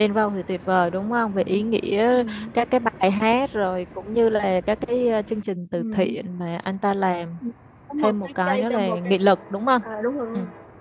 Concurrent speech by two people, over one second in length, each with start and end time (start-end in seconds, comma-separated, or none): 8.0-9.3